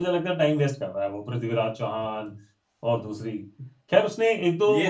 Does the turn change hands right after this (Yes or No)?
No